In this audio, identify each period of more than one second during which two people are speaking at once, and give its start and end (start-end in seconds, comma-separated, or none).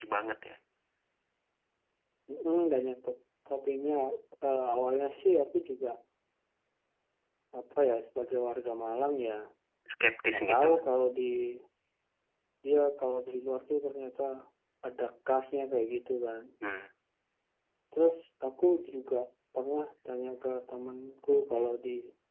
none